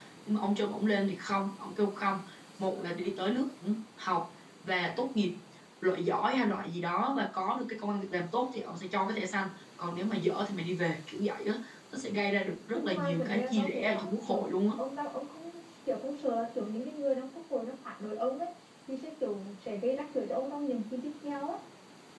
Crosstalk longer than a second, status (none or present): present